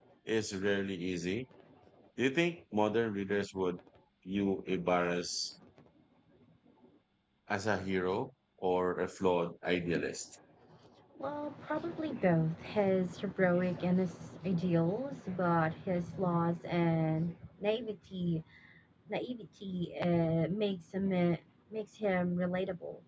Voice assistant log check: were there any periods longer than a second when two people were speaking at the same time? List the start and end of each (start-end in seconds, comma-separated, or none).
none